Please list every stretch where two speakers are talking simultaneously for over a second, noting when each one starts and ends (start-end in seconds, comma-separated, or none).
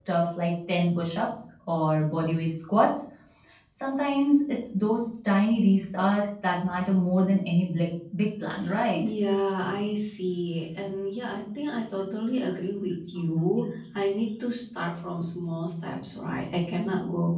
none